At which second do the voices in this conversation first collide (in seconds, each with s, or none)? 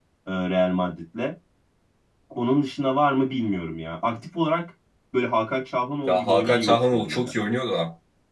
6.0 s